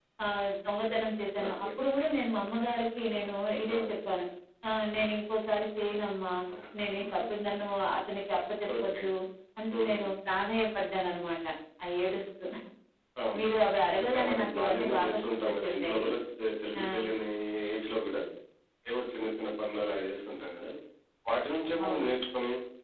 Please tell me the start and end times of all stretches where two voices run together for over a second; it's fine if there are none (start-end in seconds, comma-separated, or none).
14.0-16.0